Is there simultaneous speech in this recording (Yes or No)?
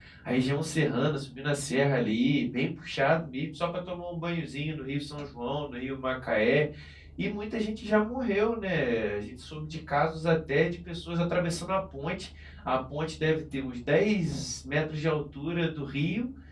No